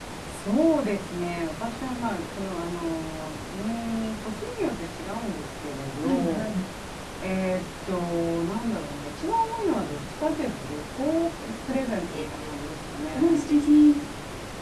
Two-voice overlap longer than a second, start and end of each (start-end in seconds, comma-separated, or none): none